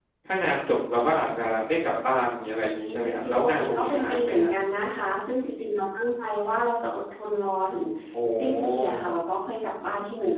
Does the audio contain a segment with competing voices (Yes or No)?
Yes